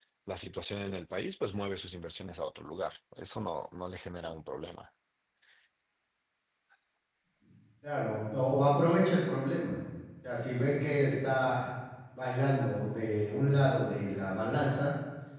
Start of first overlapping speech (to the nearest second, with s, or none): none